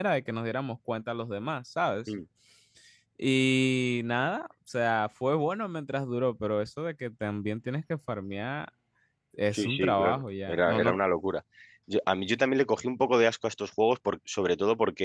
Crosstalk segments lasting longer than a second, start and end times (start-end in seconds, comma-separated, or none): 9.5-11.0